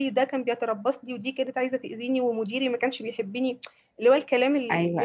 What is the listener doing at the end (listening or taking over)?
taking over